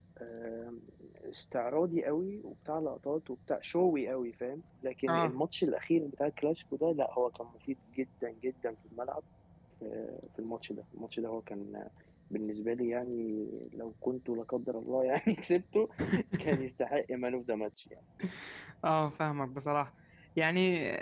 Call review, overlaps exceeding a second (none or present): none